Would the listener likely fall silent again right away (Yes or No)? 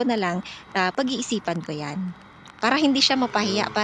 Yes